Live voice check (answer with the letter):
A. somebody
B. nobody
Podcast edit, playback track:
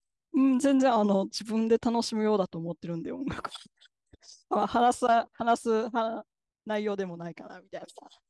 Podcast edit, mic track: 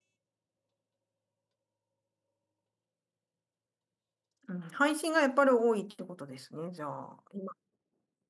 A